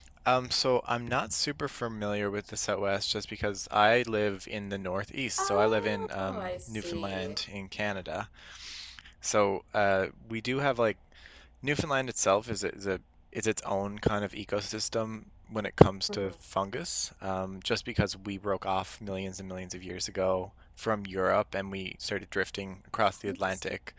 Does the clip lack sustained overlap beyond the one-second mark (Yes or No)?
No